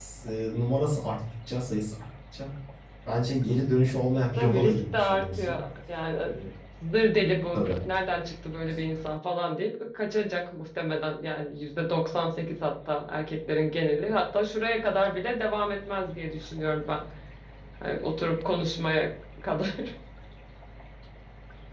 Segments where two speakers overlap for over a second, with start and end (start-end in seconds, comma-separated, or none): 4.4-5.6